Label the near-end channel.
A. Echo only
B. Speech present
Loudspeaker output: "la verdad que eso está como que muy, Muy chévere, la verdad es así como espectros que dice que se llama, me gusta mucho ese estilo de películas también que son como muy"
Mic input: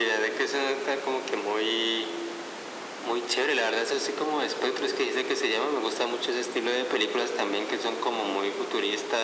A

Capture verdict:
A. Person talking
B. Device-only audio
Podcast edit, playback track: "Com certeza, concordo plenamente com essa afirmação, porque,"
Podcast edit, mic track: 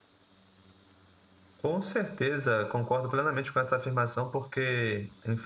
B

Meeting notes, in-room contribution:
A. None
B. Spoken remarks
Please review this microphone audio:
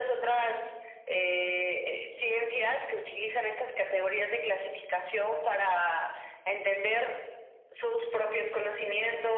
A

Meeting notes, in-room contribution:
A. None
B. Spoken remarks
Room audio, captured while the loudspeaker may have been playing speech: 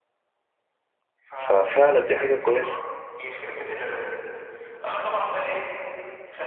B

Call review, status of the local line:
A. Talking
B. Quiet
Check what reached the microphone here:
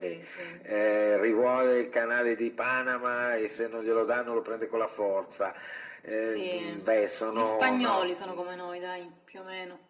B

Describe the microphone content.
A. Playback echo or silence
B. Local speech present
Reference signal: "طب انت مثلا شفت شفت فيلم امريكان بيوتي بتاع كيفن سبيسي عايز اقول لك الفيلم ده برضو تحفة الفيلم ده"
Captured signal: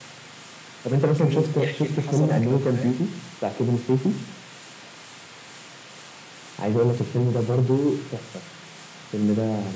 B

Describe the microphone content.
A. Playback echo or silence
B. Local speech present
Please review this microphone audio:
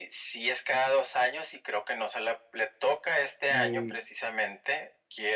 B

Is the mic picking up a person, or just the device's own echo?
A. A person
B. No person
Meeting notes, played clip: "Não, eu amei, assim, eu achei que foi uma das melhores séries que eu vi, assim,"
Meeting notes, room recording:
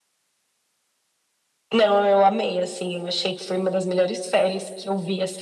B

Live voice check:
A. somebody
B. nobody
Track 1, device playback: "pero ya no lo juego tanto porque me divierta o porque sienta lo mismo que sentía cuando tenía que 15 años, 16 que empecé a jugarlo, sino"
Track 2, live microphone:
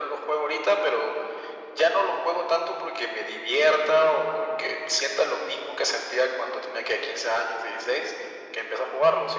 B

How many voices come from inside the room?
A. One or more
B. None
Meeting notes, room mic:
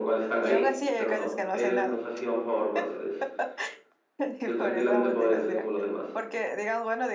A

